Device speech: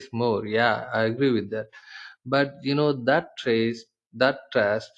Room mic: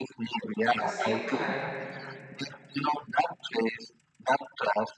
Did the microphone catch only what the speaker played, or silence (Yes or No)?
No